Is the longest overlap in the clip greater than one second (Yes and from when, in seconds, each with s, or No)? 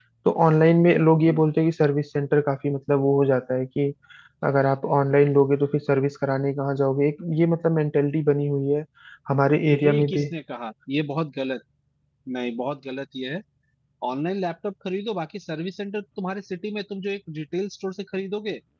No